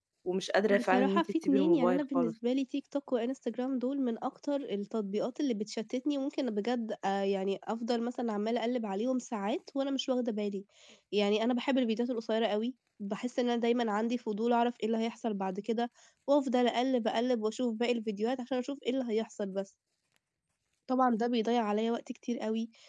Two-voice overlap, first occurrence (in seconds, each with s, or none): 0.7 s